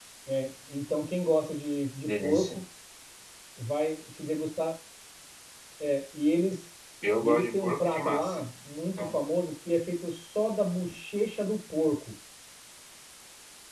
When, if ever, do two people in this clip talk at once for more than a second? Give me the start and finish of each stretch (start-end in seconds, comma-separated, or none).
7.2-8.4